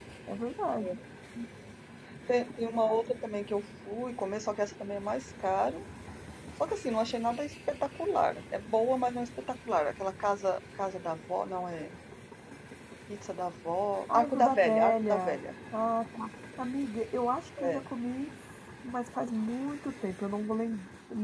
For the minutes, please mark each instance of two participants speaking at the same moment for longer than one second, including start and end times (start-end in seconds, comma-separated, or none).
14.1-15.4